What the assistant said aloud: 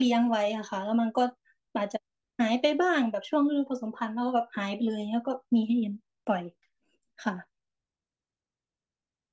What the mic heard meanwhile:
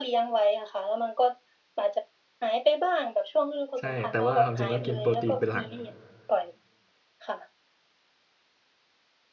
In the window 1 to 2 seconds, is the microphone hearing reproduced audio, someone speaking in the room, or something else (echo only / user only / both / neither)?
echo only